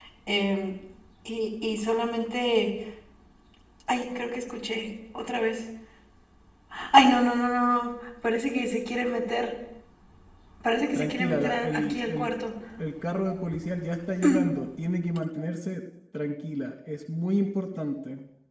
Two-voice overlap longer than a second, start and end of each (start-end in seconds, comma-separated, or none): 10.9-12.3